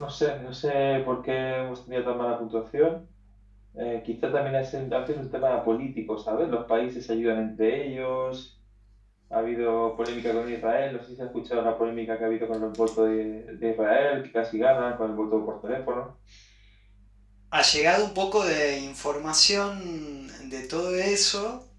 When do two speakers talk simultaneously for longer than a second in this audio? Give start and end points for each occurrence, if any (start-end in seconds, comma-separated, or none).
none